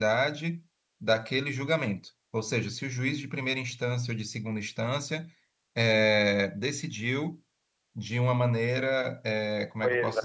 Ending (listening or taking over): listening